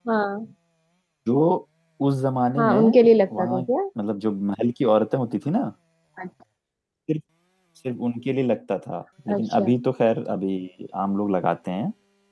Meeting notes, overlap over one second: none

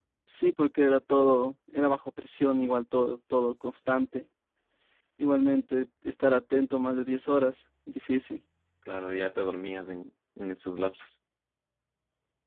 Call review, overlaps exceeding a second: none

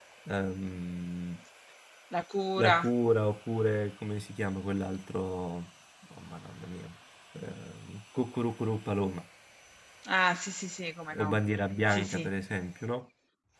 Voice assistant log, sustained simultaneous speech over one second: none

